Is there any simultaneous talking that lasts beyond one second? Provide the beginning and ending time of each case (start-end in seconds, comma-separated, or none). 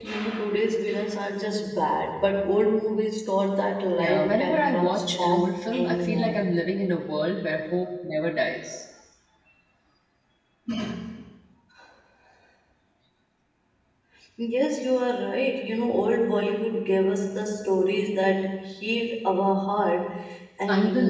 4.0-6.4